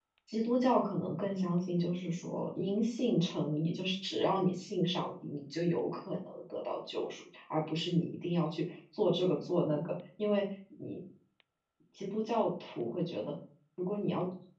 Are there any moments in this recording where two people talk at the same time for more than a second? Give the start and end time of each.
none

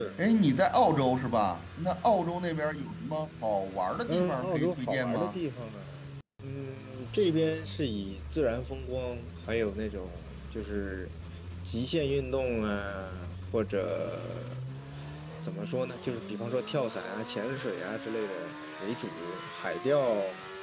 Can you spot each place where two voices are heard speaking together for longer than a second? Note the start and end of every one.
4.1-5.4

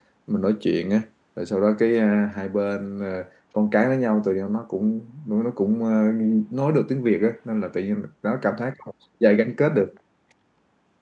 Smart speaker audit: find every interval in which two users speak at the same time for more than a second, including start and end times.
none

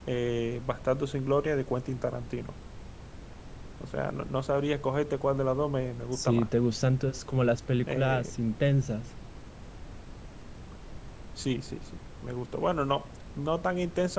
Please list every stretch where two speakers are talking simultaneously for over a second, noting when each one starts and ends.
none

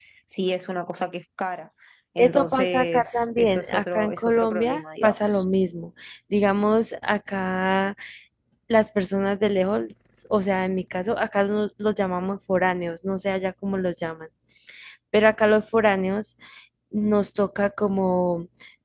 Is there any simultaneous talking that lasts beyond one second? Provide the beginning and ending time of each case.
2.2-5.5

